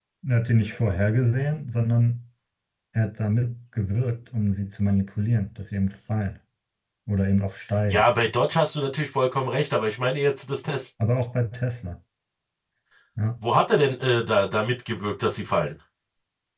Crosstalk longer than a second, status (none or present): none